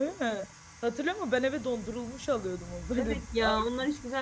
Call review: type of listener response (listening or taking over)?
taking over